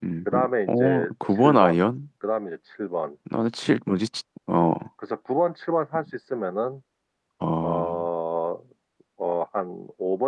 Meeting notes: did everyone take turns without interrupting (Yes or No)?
No